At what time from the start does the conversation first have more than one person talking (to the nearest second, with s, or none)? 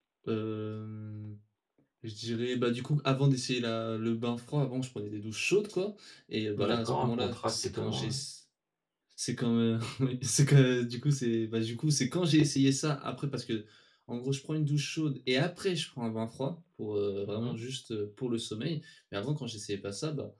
7 s